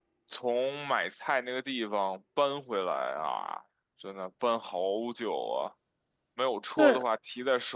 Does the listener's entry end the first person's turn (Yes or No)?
No